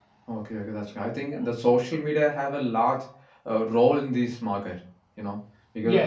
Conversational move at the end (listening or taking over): listening